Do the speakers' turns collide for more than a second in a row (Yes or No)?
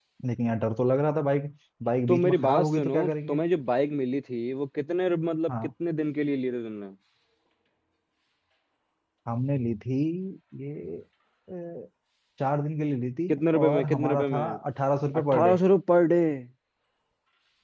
Yes